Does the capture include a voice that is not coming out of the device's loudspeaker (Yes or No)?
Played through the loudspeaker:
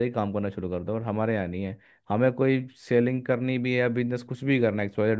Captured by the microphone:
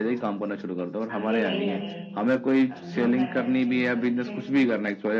Yes